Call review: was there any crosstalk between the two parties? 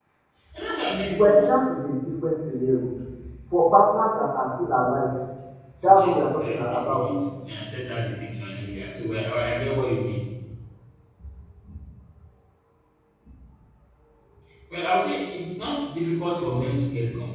Yes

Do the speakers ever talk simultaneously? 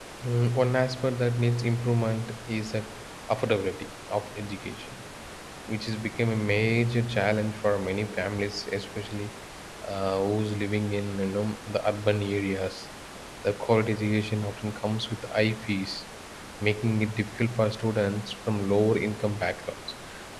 No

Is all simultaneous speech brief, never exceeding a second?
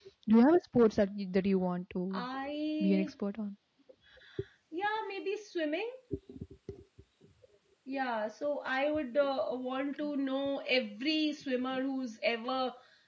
Yes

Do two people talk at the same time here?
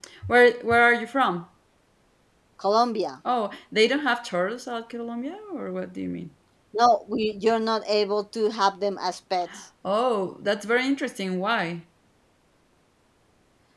No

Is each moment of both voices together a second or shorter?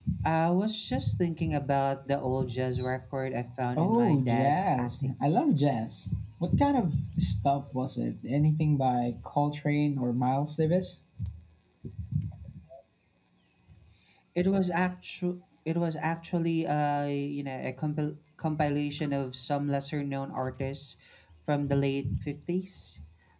No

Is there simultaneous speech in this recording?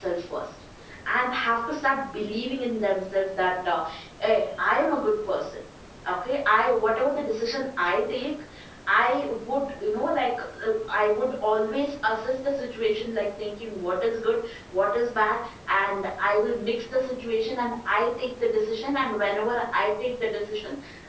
No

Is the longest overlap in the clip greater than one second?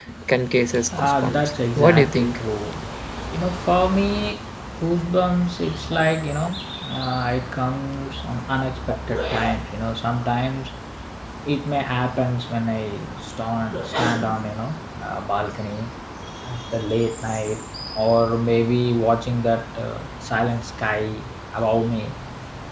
Yes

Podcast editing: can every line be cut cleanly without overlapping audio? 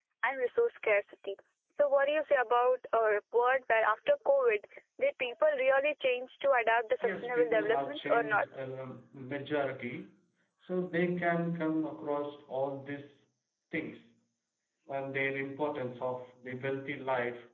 No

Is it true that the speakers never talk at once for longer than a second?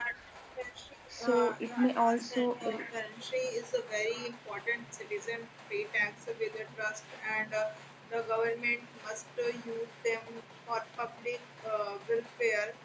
No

